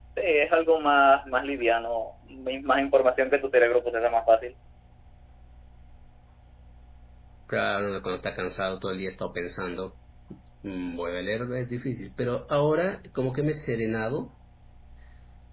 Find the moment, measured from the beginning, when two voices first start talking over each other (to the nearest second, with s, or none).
none